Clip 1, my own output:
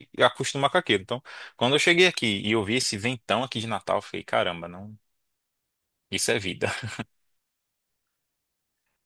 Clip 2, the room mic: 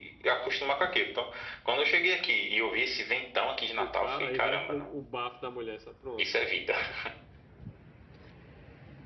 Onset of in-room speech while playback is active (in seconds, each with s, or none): 3.8 s